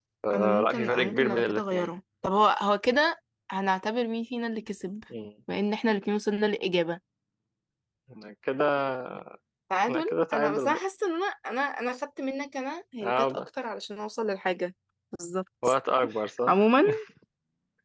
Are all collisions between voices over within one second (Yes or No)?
No